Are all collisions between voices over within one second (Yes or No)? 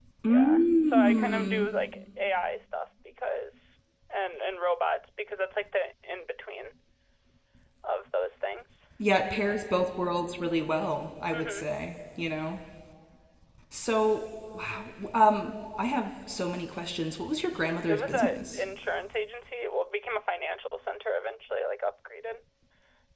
No